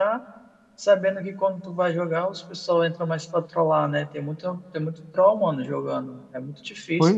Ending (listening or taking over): taking over